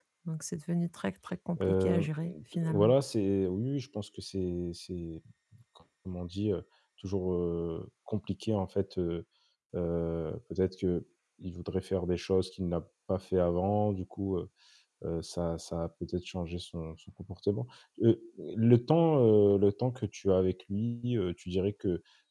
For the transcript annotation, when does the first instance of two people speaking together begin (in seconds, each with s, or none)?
1.6 s